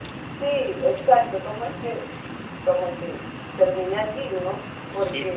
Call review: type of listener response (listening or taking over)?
taking over